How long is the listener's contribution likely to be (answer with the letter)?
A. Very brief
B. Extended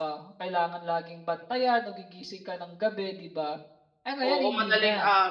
B